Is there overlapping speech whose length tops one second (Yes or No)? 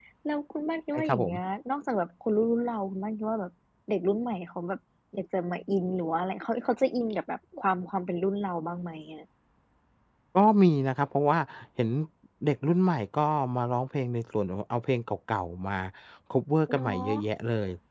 No